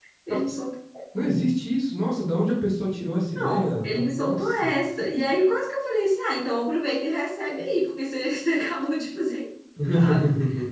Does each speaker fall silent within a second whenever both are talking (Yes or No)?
No